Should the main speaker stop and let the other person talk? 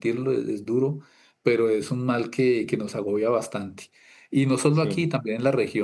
No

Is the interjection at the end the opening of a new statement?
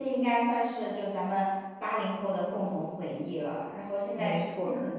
No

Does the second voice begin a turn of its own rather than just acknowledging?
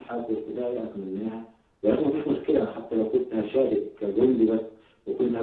No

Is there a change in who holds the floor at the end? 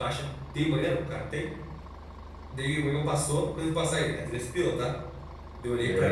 No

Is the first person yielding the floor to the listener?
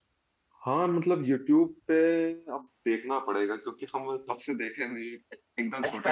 Yes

